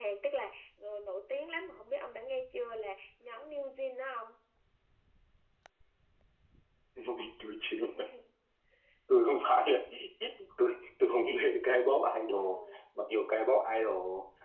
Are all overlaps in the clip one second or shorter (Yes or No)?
Yes